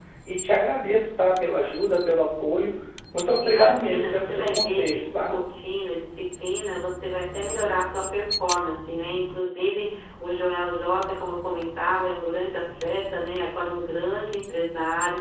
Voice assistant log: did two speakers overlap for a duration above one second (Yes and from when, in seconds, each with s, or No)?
Yes, from 3.4 s